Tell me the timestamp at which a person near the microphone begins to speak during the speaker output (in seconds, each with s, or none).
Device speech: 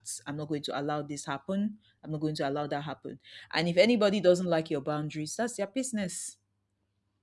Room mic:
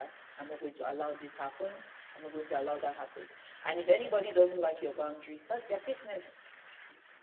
none